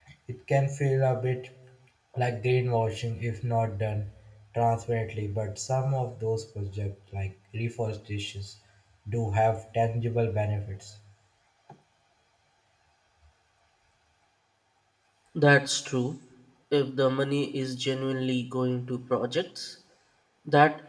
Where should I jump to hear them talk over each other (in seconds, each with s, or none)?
none